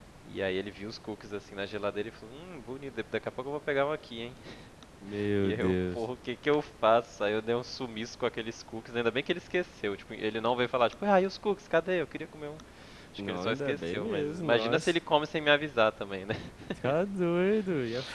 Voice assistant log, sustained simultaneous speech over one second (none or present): present